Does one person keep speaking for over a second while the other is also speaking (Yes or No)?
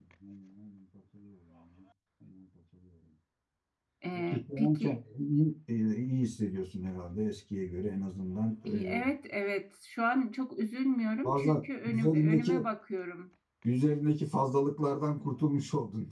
Yes